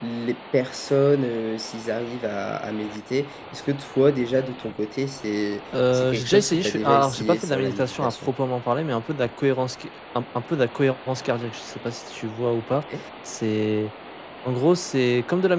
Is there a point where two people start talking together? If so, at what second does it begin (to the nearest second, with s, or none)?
6 s